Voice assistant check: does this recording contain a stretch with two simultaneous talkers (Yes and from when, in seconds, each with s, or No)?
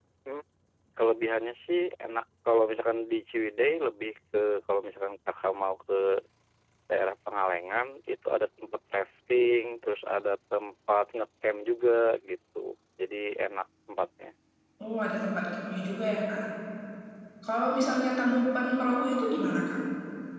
No